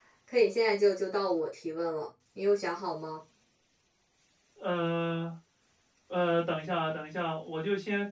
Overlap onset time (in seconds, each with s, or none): none